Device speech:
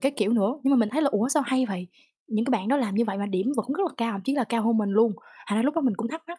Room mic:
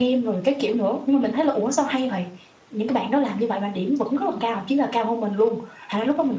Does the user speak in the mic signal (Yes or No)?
Yes